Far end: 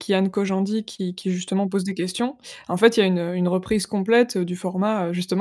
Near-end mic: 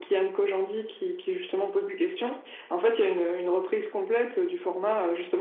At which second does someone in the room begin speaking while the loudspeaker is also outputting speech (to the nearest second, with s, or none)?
none